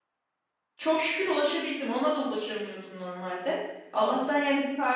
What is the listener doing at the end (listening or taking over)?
listening